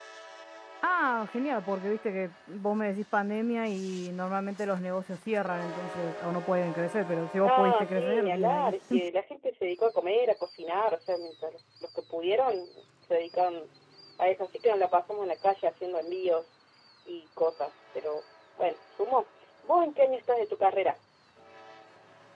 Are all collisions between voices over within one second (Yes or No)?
No